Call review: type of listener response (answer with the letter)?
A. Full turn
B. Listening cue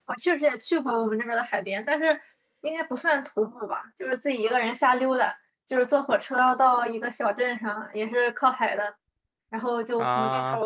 B